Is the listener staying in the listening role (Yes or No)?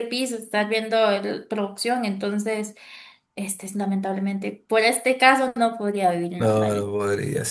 No